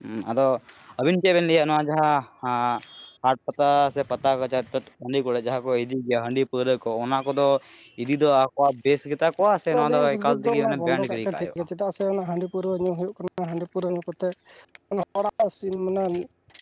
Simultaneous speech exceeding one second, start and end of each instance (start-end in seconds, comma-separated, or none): 9.8-11.6